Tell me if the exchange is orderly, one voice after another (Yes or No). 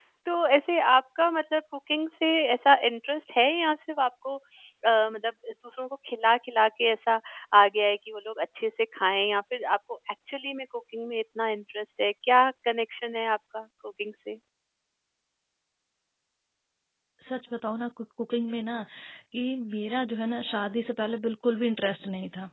Yes